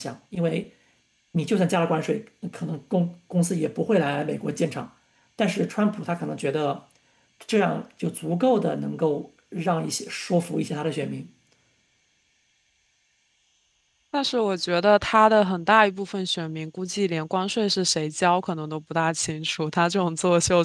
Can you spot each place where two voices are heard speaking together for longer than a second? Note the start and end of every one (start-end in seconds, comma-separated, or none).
none